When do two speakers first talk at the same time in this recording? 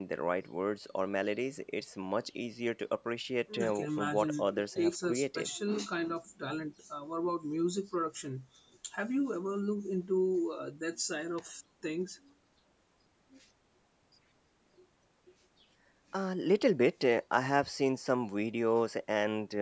3.5 s

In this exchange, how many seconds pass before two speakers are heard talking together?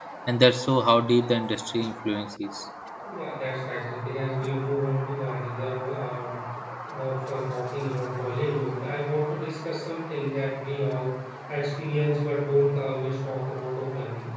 none

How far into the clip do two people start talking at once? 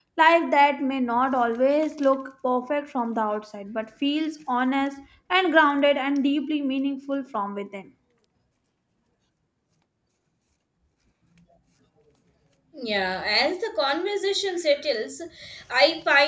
none

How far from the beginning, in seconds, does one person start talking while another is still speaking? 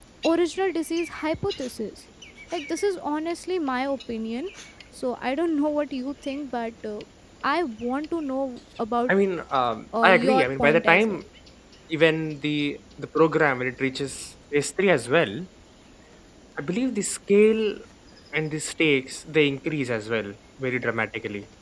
10.0 s

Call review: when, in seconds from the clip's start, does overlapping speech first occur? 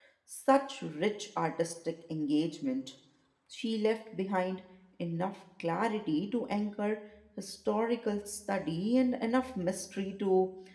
none

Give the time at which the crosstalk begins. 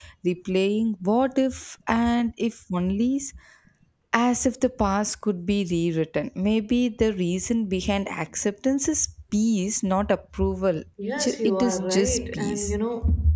11.2 s

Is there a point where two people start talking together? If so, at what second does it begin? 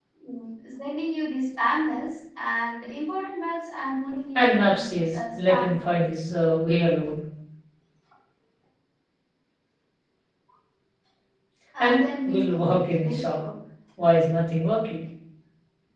4.3 s

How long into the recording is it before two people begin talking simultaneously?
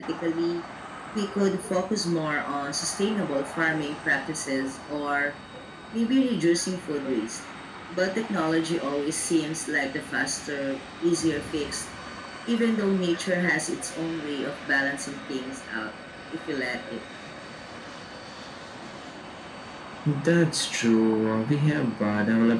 none

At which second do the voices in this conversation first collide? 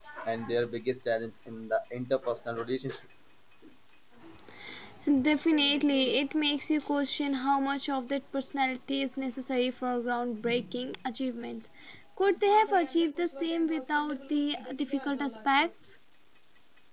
none

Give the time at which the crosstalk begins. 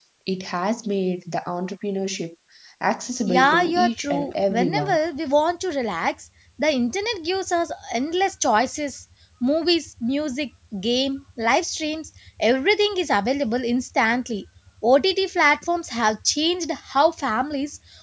3.3 s

